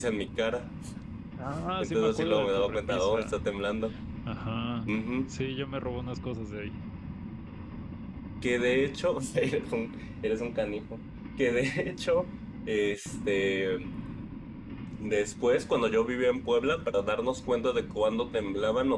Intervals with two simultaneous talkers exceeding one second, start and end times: 1.8-3.4

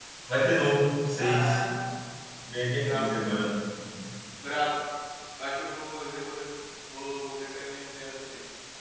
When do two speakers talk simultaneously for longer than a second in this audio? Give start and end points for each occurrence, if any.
none

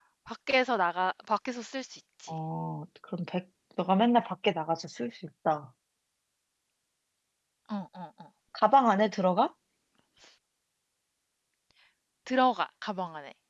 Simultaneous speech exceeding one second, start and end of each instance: none

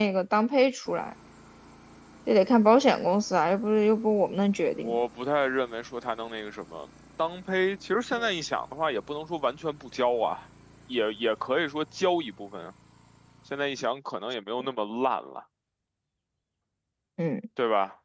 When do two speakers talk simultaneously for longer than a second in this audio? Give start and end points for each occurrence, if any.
none

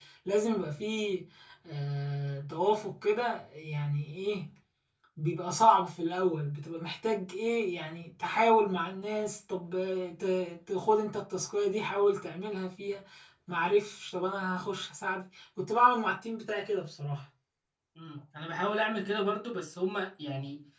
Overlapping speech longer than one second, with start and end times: none

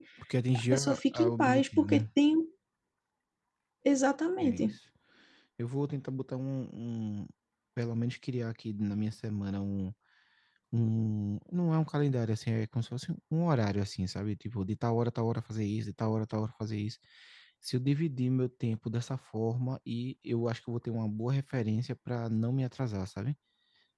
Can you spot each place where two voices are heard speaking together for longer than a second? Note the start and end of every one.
0.7-2.0

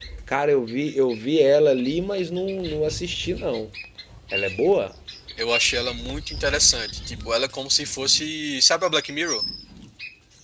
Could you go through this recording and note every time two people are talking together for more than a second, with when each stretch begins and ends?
none

